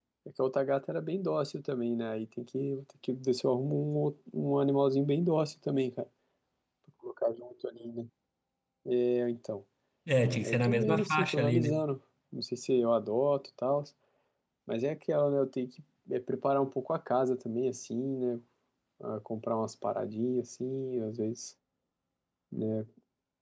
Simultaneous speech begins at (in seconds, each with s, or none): 10.4 s